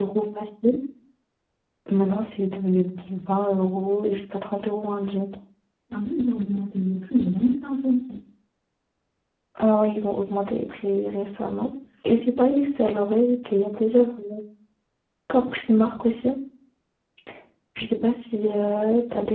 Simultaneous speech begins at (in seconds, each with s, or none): none